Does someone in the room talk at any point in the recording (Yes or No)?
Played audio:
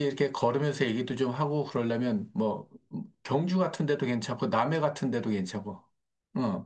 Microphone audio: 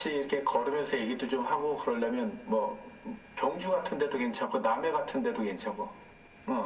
No